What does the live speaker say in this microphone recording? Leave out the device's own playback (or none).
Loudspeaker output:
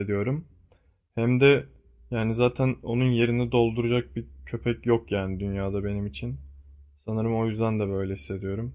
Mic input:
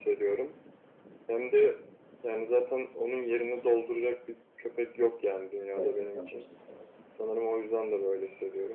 Gerçekten başın sağ olsun.